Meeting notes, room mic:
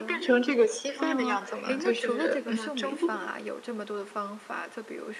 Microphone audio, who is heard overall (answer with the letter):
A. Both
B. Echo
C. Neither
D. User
A